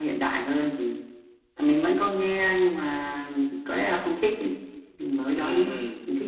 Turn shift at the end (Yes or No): Yes